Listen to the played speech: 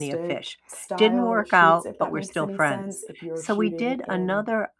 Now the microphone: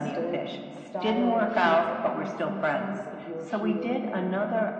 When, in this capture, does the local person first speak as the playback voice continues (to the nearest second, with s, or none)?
none